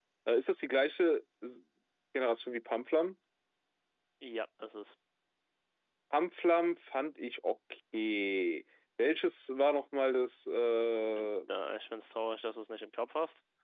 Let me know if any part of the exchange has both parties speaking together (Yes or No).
No